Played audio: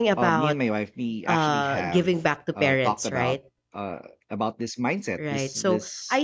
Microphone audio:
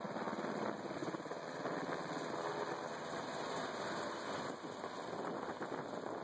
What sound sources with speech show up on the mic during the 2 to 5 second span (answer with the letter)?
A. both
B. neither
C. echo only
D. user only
B